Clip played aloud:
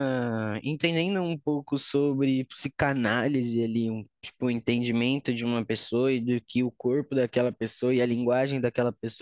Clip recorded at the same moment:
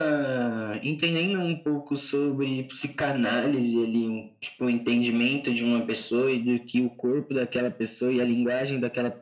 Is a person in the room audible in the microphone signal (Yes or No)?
No